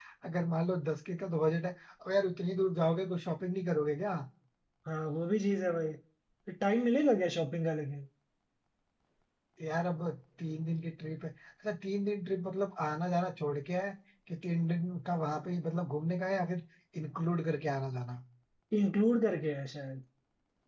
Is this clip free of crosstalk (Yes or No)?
Yes